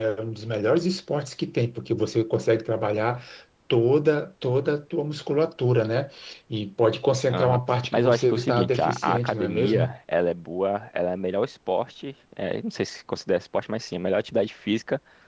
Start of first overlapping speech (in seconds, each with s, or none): 7.3 s